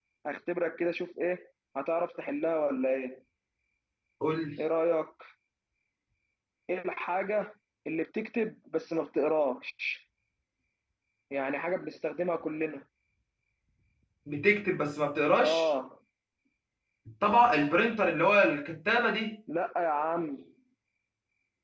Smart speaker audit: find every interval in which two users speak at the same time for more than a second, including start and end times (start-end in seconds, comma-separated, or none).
none